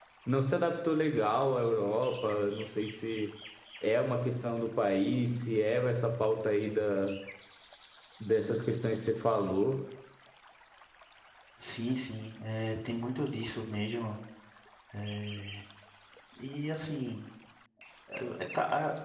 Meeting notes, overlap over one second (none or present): none